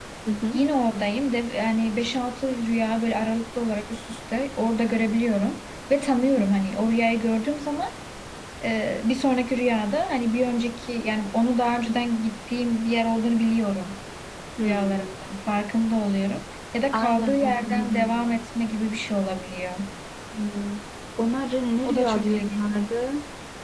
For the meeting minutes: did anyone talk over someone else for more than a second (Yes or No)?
Yes